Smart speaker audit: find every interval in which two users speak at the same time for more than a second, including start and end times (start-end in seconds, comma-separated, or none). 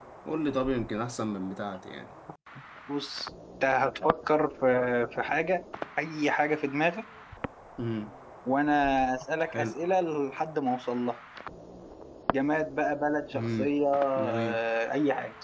none